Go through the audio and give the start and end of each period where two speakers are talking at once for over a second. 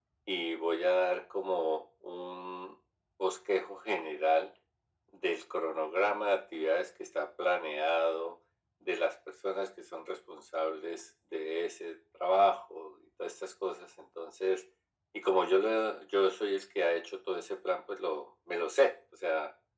none

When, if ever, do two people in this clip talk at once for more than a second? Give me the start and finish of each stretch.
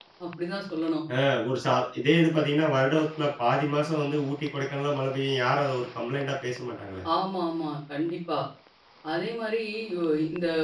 none

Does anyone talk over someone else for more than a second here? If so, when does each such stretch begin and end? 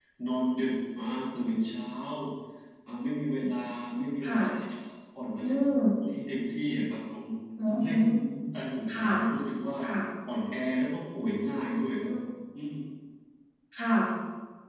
none

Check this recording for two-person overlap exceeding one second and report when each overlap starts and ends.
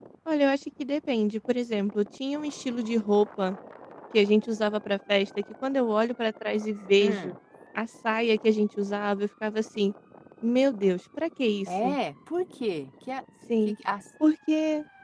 none

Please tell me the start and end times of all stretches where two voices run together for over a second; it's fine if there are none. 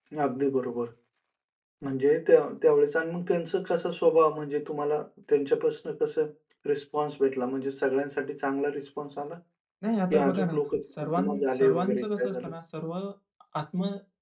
11.0-12.5

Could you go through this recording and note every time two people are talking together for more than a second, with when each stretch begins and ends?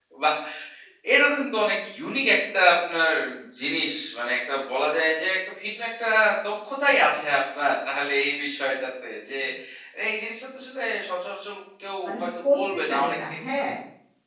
12.0-13.3

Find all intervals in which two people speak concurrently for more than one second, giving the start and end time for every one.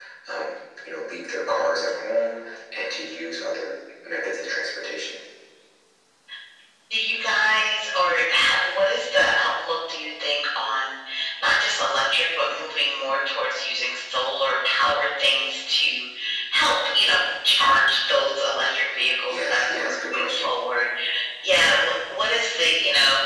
19.3-20.5

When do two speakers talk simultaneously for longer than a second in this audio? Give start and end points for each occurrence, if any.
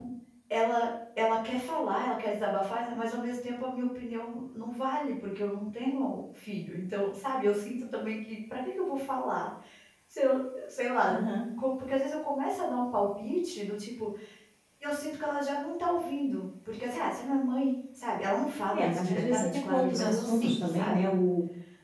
18.7-21.1

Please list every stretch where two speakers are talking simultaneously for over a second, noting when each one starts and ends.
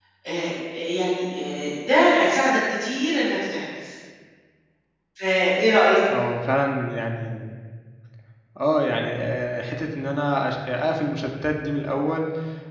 none

